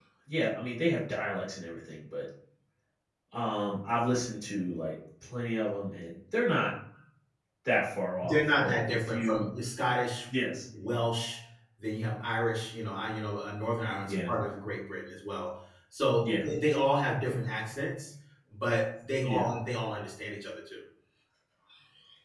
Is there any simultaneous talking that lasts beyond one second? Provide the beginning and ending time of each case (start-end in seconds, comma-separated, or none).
8.2-9.5